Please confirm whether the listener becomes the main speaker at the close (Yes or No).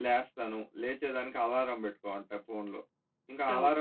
No